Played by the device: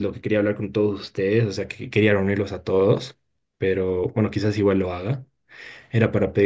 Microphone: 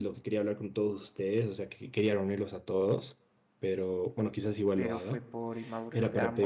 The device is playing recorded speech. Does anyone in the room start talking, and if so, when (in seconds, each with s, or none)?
4.7 s